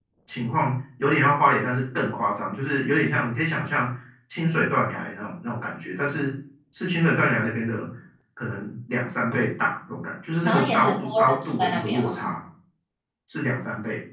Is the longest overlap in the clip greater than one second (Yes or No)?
Yes